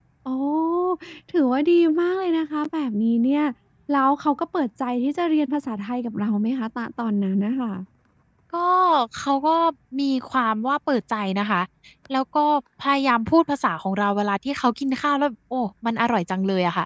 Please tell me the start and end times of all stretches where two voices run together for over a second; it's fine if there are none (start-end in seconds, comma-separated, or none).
none